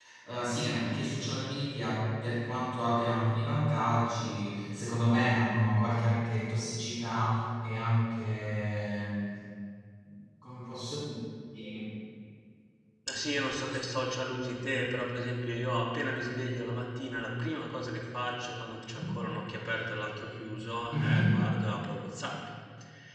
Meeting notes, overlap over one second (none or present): none